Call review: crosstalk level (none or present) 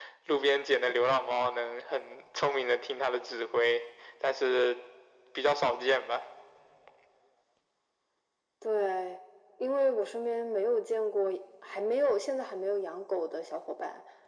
none